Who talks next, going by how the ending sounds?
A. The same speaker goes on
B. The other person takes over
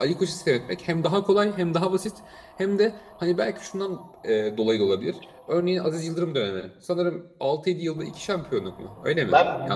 B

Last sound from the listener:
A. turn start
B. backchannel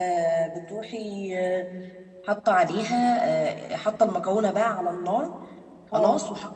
B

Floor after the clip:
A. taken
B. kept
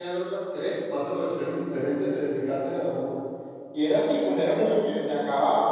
B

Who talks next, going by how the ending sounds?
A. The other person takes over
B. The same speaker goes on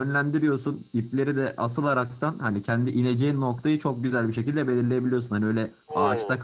B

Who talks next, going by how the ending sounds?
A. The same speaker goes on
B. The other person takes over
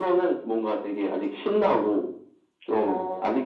A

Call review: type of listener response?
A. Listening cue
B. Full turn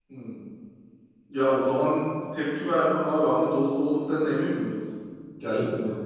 B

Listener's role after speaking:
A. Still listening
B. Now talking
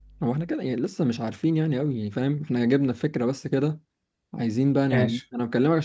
A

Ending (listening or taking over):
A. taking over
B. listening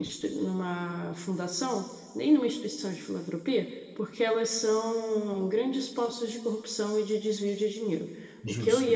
B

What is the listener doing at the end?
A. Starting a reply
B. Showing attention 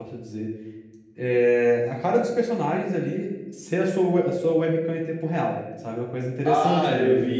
A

